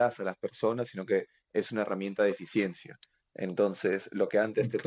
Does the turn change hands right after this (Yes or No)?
No